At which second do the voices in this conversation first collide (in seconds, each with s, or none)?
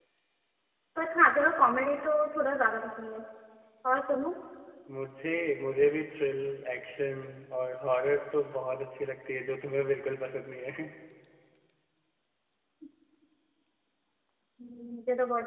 none